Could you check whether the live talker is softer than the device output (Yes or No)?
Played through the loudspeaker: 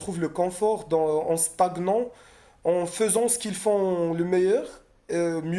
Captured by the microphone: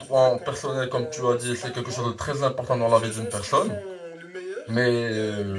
No